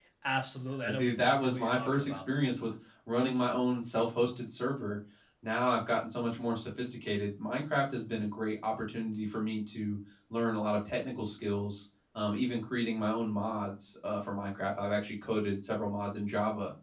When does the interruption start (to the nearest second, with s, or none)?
1 s